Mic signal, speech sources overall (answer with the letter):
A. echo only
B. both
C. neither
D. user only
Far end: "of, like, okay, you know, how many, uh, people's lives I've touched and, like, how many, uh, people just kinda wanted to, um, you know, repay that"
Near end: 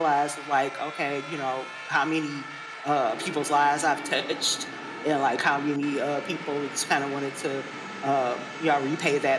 A